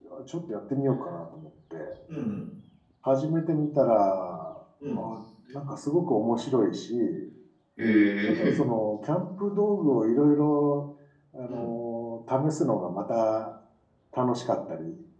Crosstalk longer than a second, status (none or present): none